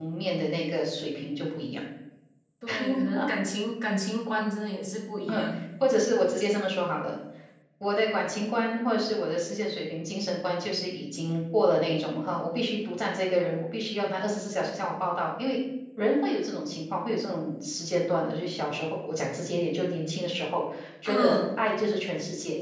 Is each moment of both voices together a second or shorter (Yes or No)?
Yes